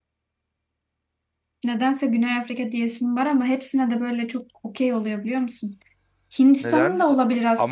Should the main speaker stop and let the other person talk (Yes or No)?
Yes